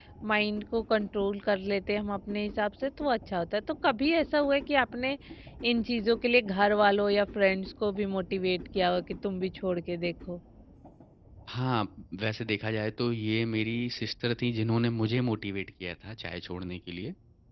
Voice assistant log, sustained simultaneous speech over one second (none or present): none